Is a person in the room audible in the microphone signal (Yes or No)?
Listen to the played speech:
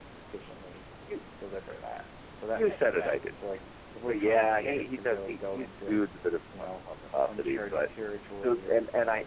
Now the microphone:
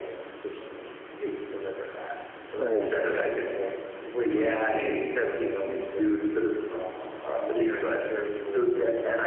Yes